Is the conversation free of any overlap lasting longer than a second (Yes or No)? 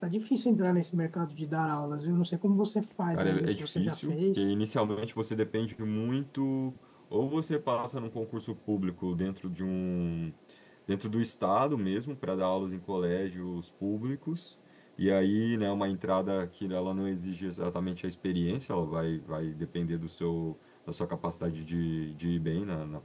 No